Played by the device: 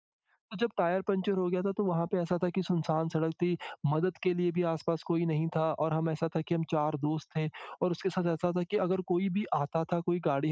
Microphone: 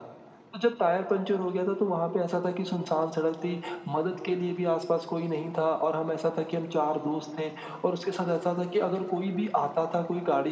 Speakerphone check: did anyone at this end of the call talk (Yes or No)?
No